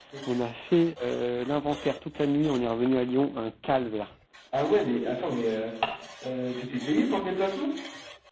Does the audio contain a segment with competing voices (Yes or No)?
No